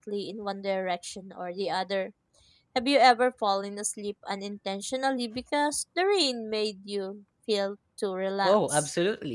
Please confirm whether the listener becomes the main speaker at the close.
Yes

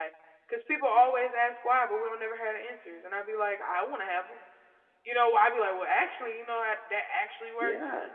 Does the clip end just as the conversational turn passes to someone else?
Yes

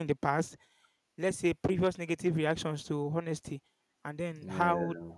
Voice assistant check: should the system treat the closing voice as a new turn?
No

